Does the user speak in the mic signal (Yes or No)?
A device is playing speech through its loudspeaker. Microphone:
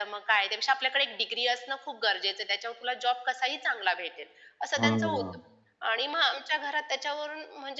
Yes